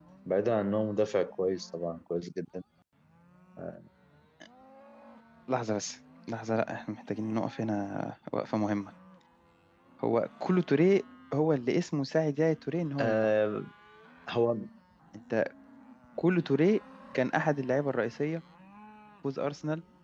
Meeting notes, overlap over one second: none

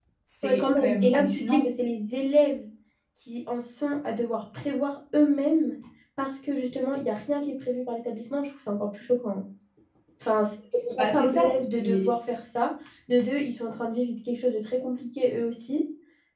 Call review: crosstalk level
present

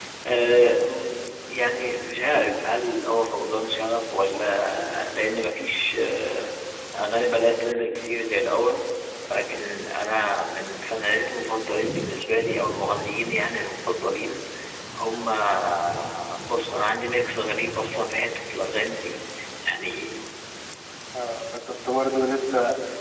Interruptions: none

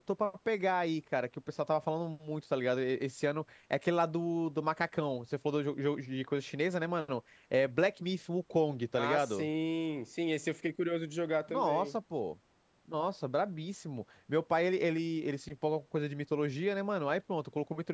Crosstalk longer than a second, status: none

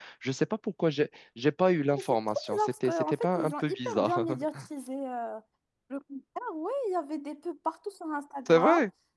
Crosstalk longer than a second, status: present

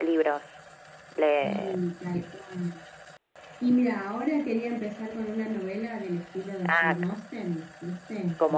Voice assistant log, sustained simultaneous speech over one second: none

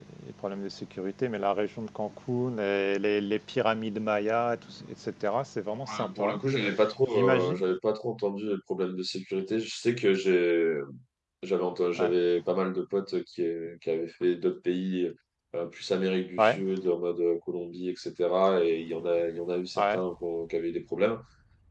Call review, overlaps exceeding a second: none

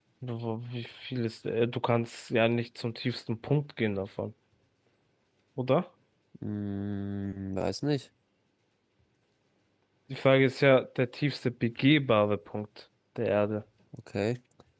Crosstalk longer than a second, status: none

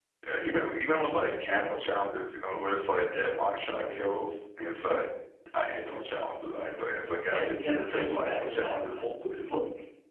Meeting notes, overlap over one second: present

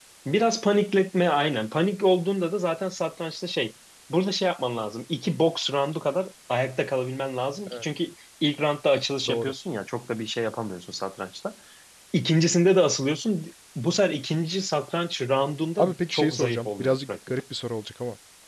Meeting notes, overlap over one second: present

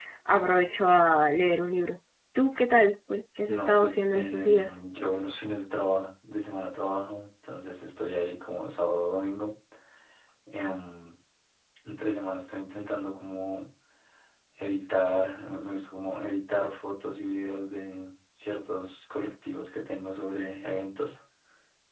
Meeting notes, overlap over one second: present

